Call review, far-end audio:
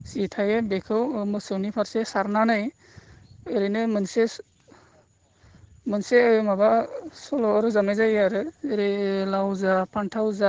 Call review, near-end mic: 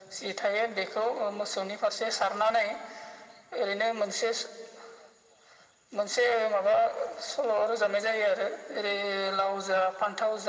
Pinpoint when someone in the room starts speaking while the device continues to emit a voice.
none

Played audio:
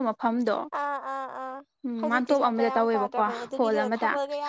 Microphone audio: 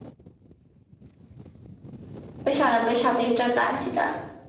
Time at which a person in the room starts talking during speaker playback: 2.4 s

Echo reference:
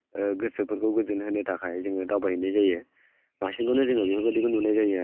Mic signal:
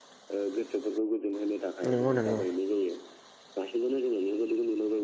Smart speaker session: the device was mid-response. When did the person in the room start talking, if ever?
1.9 s

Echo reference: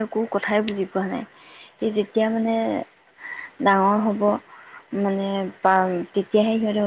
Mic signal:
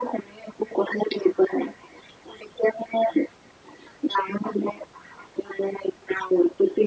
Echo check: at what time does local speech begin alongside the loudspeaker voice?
none

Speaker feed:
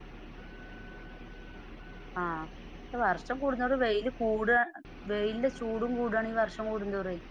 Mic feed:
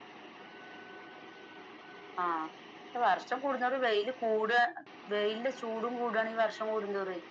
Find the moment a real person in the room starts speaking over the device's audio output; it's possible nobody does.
none

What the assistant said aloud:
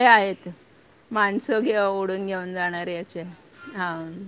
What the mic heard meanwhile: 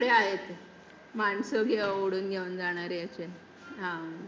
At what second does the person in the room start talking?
none

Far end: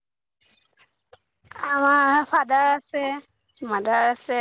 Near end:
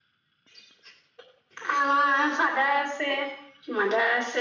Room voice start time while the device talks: none

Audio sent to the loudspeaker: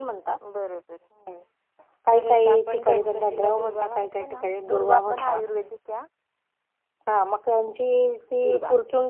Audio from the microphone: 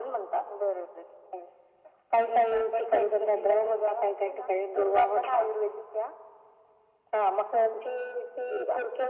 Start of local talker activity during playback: none

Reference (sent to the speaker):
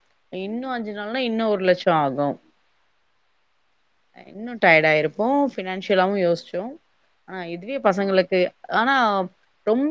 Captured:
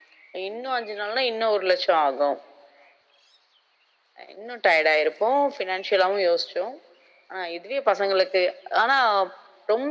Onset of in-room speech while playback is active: none

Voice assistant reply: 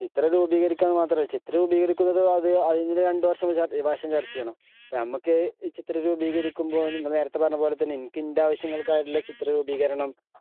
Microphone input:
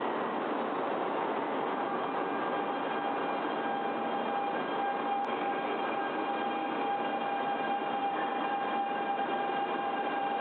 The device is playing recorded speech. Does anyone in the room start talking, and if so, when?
none

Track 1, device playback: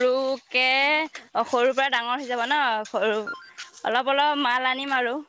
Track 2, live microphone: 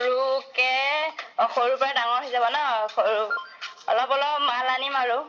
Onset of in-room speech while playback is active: none

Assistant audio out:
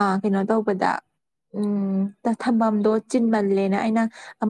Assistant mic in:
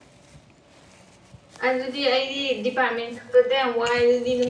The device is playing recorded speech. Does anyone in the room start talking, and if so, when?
1.7 s

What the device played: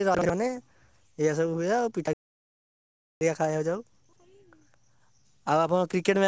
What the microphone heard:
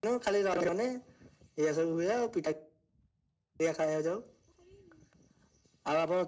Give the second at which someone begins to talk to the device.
none

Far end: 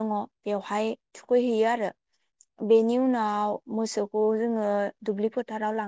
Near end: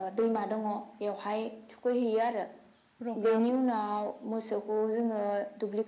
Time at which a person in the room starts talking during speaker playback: 3.0 s

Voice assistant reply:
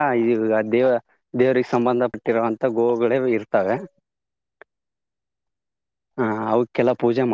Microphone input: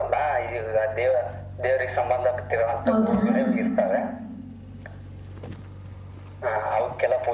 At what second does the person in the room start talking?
2.9 s

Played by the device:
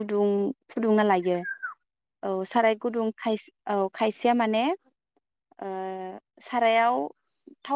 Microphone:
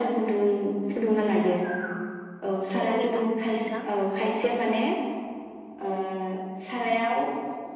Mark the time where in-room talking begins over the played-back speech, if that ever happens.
2.8 s

